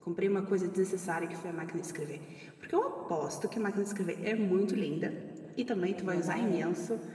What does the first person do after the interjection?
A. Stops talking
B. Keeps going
B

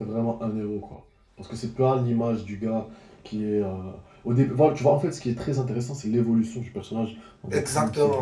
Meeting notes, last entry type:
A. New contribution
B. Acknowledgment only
A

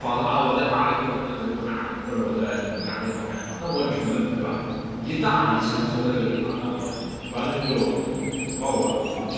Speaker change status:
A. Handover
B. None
B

